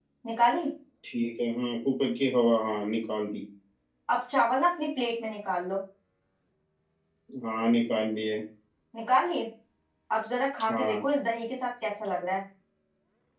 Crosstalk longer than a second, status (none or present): none